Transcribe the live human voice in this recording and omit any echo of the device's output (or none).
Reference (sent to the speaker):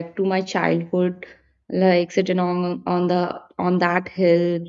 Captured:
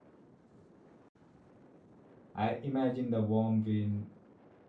i imagine the warm wind